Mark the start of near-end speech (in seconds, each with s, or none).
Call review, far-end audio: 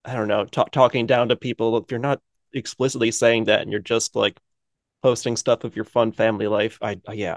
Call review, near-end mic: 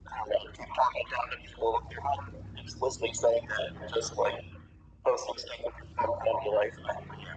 none